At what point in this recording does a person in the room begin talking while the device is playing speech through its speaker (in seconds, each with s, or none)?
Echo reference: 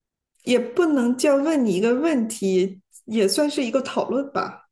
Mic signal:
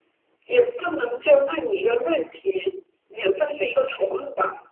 none